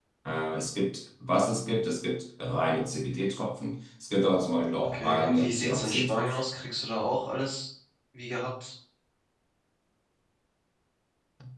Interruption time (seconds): 4.8 s

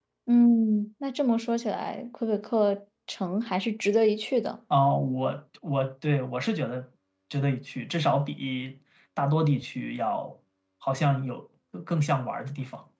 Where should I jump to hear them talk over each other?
none

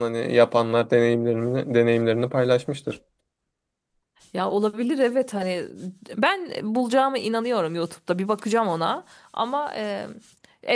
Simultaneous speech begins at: none

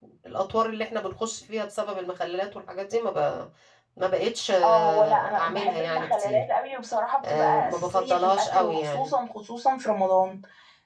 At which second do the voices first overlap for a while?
4.6 s

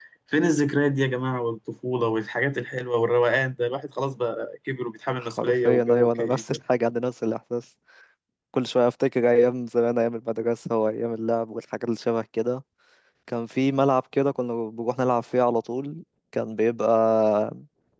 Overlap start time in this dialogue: 5.2 s

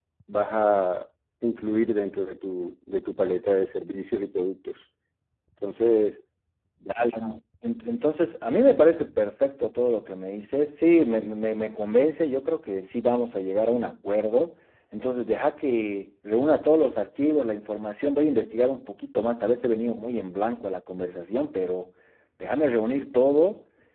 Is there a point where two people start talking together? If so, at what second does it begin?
none

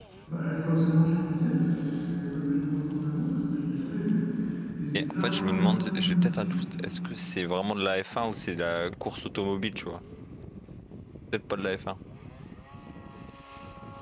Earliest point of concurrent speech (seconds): 4.9 s

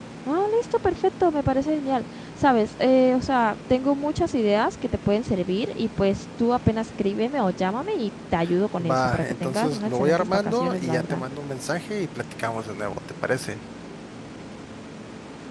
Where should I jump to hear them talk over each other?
8.8 s

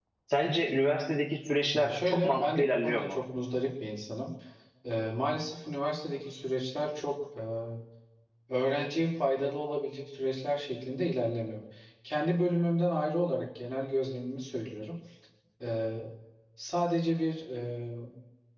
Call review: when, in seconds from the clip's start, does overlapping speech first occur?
1.7 s

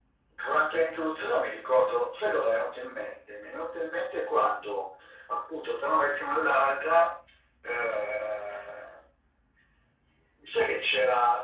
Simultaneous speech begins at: none

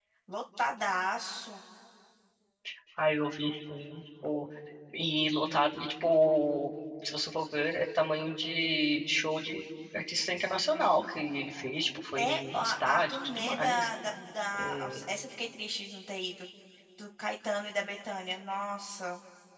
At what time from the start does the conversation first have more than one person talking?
12.2 s

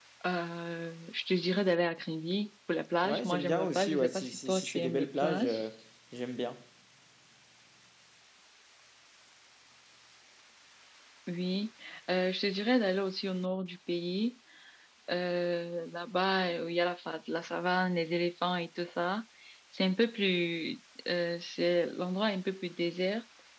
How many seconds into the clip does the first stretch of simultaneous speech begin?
3.0 s

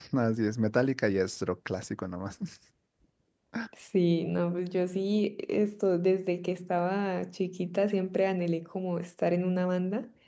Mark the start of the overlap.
none

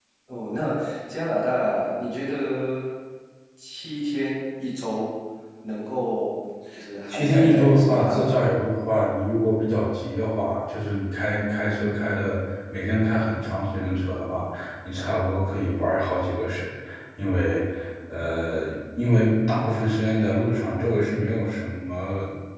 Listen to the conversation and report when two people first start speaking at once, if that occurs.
7.1 s

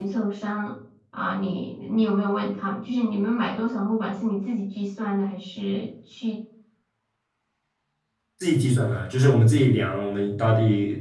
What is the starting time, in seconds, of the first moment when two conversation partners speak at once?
none

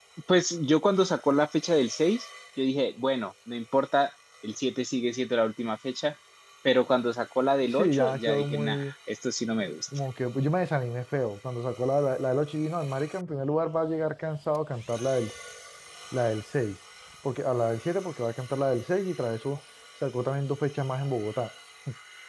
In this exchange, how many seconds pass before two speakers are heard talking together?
7.7 s

